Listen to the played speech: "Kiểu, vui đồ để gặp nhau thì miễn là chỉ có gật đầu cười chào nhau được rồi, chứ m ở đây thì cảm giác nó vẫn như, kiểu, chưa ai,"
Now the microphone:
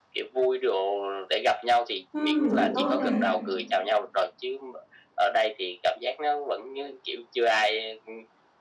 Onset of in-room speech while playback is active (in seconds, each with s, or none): 2.1 s